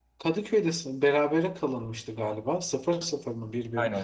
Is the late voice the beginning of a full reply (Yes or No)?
Yes